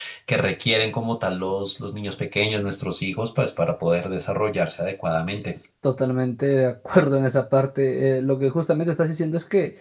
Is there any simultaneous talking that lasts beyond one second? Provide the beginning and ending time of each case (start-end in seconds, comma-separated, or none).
none